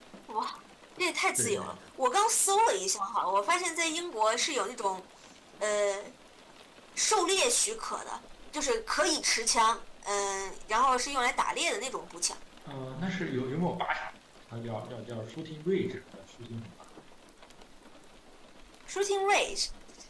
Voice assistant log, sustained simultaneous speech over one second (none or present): none